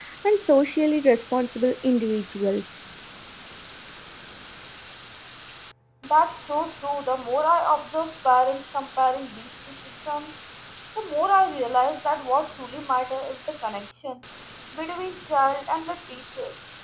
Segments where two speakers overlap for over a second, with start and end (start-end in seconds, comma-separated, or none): none